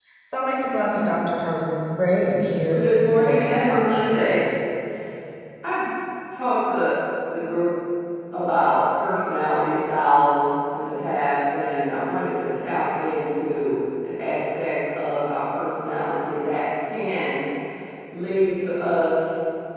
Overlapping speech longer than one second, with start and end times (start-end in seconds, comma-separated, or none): 2.7-4.3